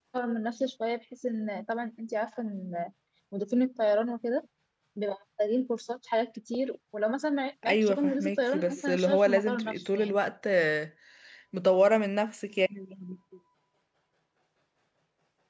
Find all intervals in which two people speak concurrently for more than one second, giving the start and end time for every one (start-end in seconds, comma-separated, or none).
7.7-10.2